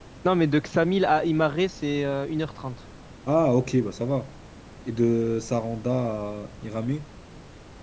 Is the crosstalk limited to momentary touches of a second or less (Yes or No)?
Yes